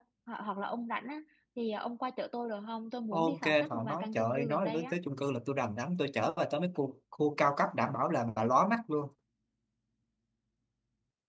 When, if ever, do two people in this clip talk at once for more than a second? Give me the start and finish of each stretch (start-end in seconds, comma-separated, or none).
3.1-5.0